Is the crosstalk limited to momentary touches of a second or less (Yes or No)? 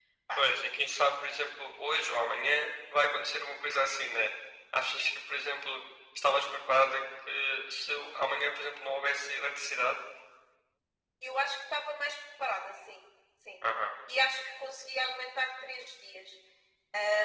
Yes